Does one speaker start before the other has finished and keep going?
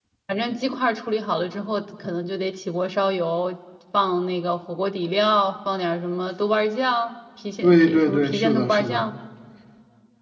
Yes, from 7.6 s

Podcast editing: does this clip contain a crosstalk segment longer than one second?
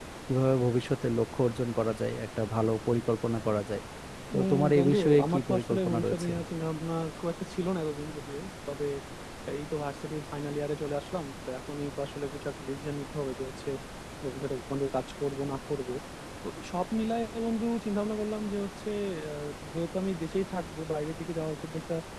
Yes, from 4.3 s

